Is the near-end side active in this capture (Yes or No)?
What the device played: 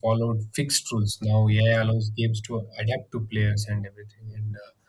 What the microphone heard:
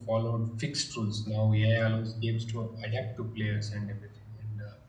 No